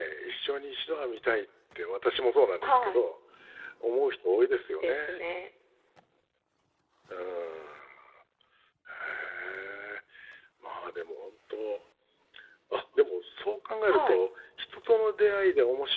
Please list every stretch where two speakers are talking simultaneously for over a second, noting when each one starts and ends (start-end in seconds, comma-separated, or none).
none